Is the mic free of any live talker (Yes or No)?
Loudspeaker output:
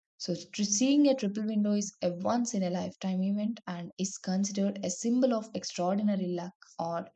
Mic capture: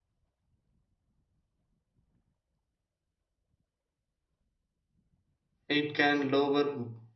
No